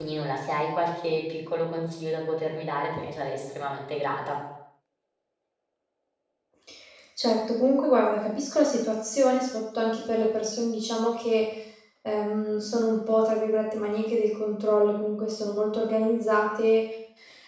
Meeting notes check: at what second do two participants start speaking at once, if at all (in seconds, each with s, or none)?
none